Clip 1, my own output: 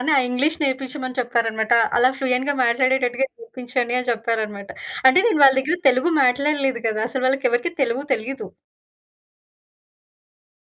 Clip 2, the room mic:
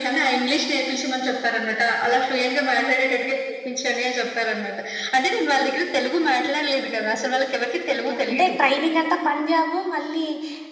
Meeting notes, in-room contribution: present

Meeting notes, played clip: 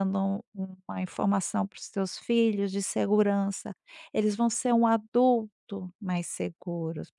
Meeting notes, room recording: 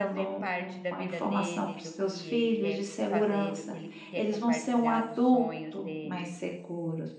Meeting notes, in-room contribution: present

